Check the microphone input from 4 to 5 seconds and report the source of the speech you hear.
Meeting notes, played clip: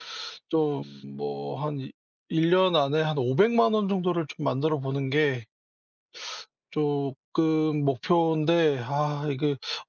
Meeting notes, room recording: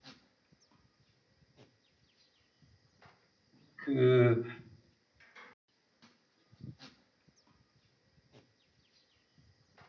user only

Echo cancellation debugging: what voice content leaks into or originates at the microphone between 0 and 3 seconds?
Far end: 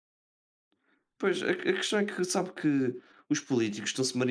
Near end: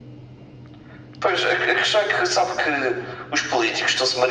echo only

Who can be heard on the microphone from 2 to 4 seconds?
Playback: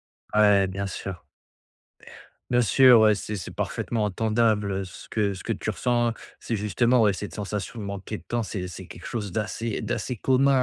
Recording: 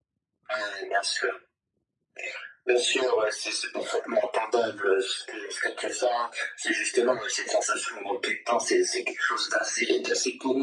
echo only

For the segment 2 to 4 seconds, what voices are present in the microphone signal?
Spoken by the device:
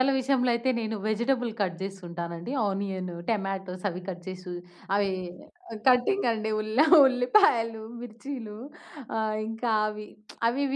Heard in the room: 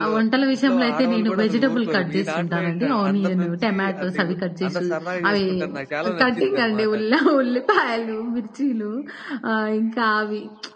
both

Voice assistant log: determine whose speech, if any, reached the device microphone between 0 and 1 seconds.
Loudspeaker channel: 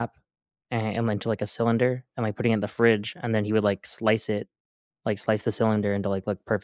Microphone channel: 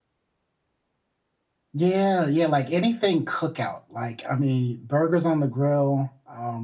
neither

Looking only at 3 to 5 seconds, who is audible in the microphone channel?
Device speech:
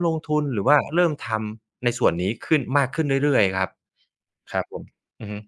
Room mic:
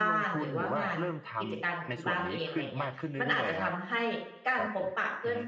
both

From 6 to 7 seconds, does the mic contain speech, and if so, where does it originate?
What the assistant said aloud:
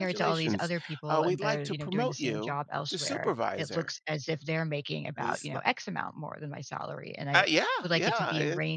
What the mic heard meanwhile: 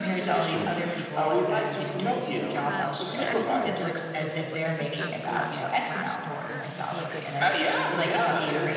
both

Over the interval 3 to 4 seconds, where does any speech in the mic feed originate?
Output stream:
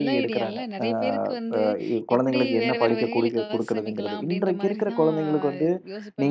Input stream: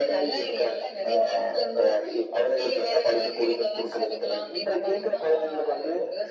echo only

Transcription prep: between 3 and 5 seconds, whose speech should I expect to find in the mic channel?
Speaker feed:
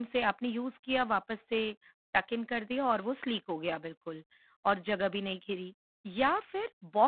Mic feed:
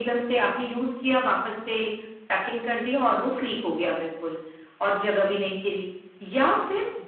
echo only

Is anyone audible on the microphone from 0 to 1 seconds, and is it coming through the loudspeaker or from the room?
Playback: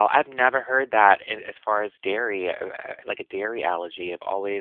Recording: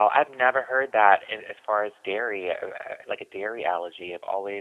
echo only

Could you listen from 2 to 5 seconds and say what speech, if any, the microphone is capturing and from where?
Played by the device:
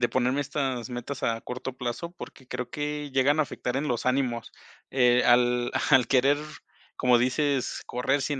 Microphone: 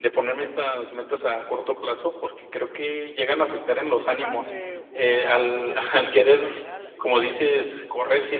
both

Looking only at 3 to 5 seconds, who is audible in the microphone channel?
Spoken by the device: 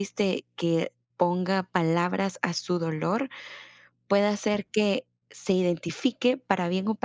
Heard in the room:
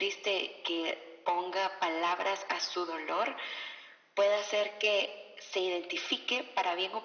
echo only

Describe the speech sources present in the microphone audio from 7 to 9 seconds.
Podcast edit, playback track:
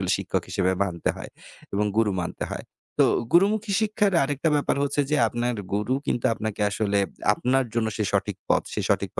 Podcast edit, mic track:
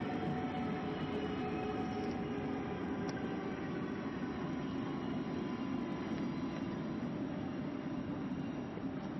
neither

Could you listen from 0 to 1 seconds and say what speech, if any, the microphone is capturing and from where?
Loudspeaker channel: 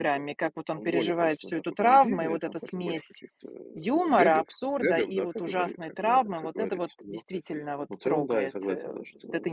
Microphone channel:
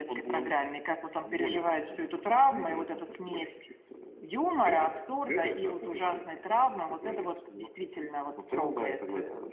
echo only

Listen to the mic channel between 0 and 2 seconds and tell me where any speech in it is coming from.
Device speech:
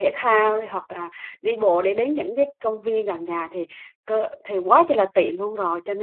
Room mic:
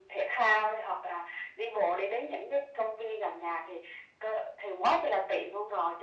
echo only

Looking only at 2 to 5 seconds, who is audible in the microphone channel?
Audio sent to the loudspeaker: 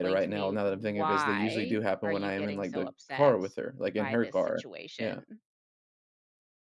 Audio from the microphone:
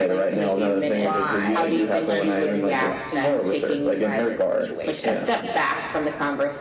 both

